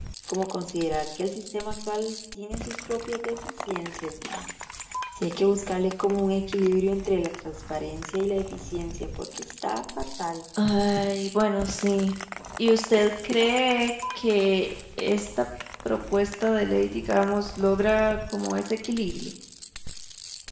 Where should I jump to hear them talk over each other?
none

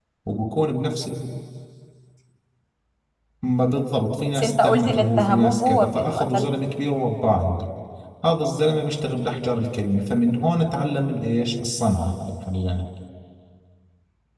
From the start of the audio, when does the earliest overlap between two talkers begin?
4.3 s

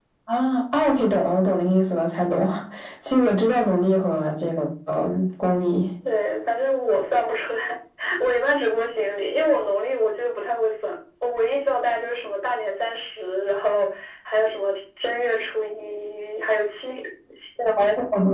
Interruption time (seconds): none

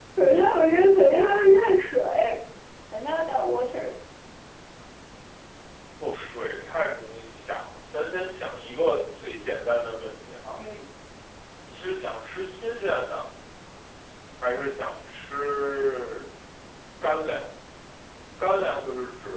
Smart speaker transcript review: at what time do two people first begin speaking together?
none

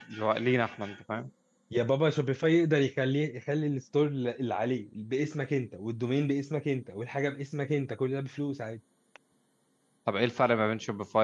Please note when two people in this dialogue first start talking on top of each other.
none

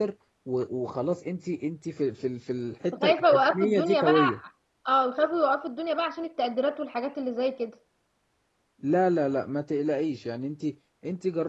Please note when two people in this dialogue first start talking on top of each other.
2.9 s

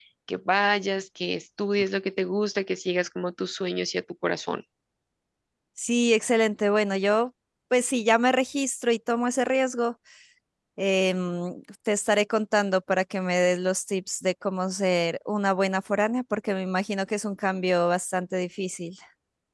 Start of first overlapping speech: none

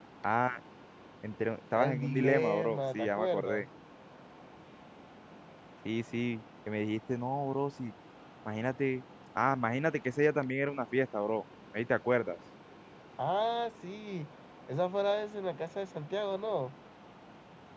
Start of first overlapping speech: 1.8 s

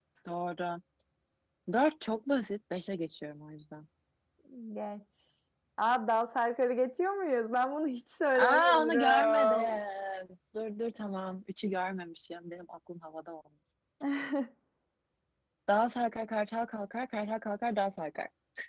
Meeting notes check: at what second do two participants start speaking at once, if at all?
8.4 s

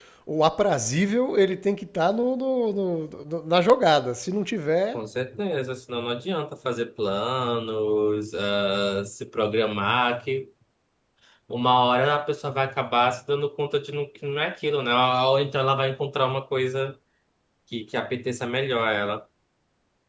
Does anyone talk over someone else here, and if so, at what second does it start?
none

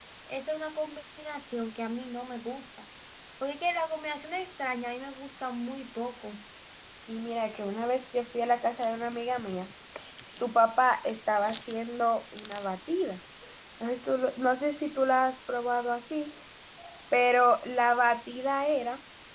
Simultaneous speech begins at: none

